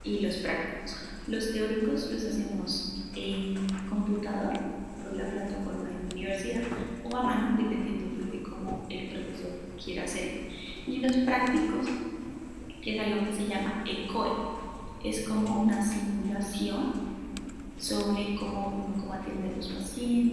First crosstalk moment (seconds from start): none

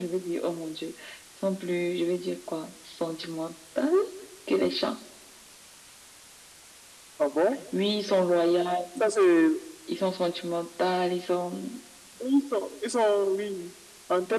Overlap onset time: none

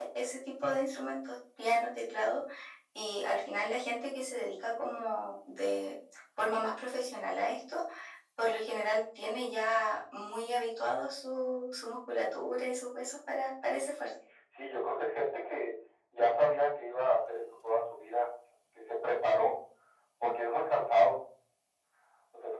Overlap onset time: none

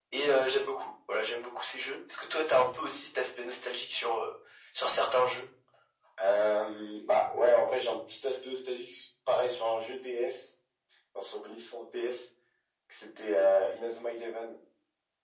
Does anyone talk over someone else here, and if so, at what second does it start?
none

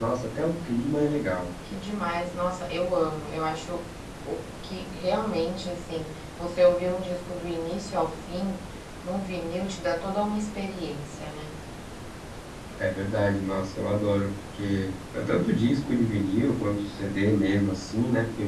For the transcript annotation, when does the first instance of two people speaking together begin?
none

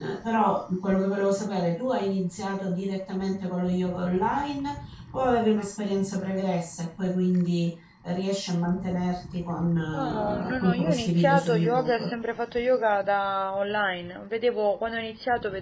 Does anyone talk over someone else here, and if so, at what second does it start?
9.9 s

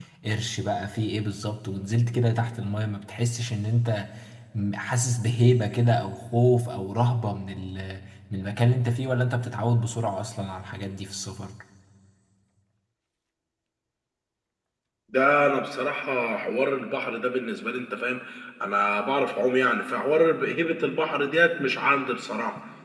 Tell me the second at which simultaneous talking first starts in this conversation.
none

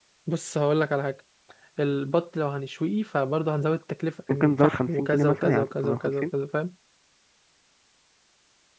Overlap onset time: 4.3 s

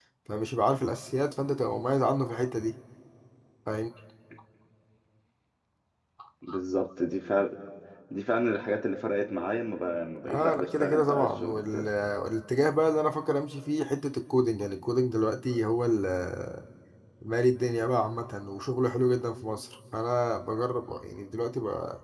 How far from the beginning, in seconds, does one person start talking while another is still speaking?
10.2 s

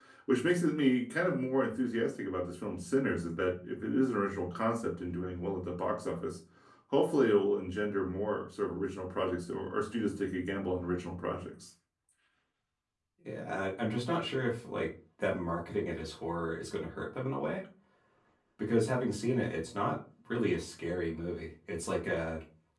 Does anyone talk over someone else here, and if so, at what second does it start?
none

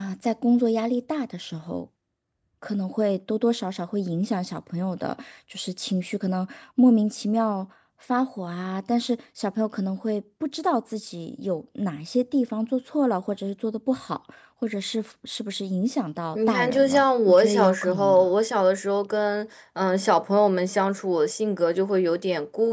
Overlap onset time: 16.3 s

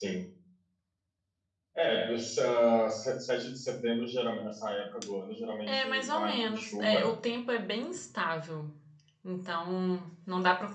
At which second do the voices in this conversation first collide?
5.7 s

